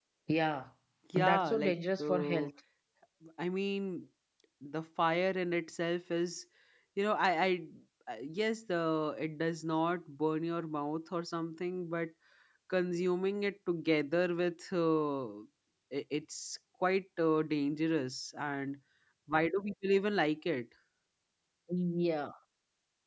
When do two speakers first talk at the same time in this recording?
1.2 s

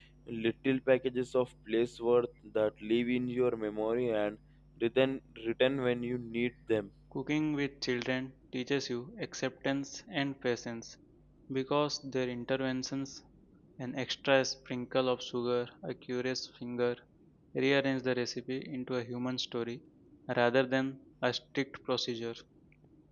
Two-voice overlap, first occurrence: none

